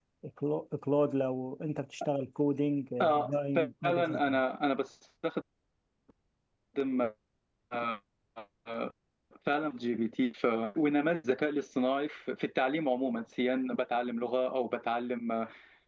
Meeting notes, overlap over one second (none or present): present